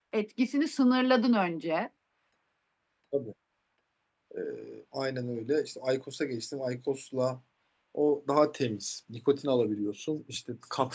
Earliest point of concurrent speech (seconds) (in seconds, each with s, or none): none